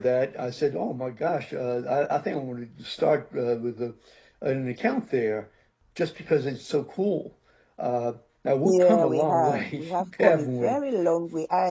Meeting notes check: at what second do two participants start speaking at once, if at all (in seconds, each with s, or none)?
8.6 s